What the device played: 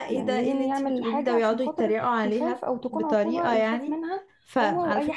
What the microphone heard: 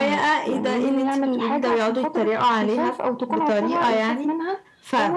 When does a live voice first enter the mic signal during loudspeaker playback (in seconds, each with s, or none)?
none